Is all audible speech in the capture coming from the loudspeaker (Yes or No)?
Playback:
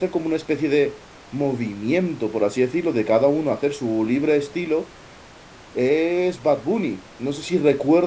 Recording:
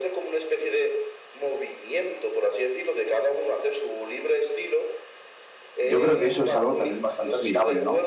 No